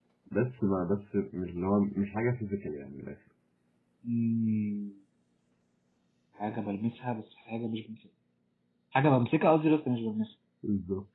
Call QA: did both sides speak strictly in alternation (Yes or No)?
Yes